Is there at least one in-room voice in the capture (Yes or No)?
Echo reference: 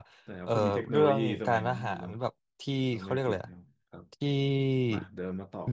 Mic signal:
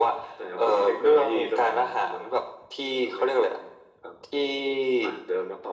No